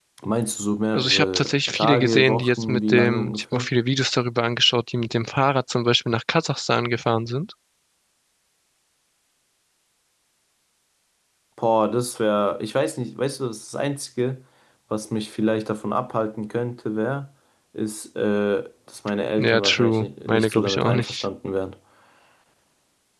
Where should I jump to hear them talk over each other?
0.9 s

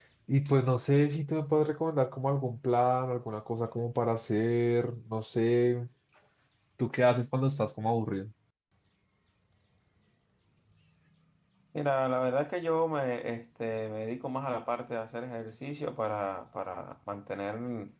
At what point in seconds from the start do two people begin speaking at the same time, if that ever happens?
none

